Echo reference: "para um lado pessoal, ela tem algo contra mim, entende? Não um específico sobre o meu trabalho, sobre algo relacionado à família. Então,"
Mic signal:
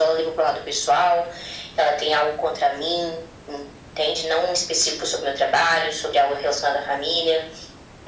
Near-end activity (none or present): none